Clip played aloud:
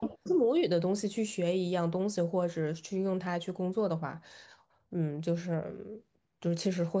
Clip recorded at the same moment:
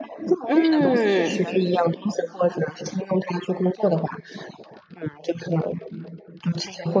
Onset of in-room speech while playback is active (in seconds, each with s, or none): 0.4 s